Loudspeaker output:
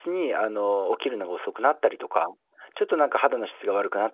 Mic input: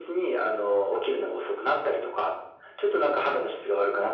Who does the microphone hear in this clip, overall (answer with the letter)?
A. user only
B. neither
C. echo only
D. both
C